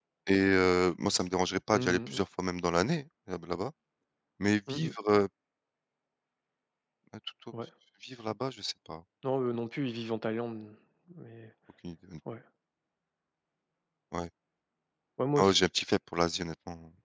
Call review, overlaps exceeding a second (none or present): none